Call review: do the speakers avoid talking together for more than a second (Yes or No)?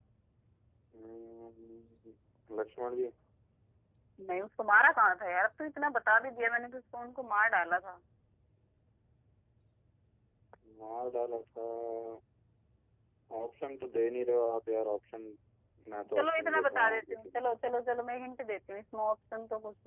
No